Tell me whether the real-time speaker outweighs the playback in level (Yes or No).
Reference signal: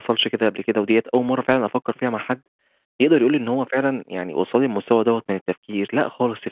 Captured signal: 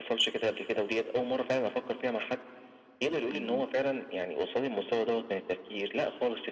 No